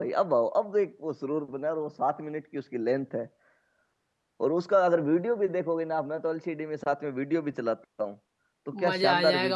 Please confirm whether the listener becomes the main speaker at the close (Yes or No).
Yes